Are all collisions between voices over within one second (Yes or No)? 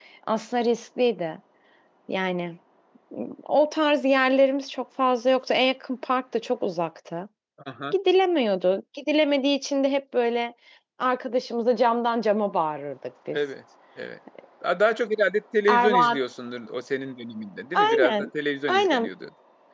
Yes